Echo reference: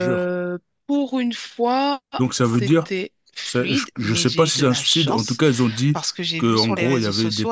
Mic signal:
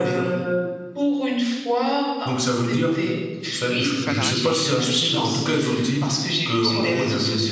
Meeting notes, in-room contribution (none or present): present